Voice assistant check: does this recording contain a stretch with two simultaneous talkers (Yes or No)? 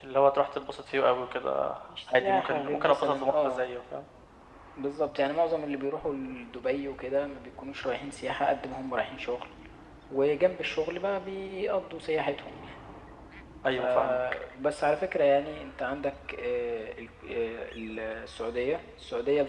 Yes